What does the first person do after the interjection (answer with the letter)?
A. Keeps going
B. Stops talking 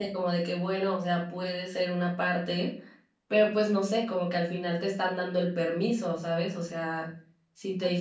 A